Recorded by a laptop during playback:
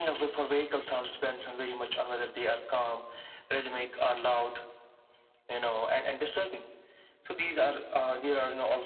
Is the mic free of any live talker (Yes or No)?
Yes